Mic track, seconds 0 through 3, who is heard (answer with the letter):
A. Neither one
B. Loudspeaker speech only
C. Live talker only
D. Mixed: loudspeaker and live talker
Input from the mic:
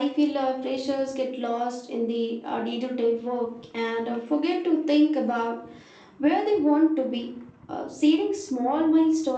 B